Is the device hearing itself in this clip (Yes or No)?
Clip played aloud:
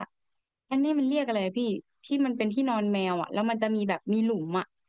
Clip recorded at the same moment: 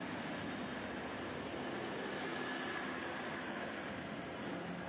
No